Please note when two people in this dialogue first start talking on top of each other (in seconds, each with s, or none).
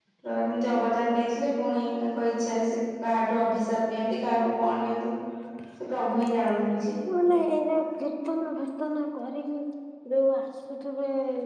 none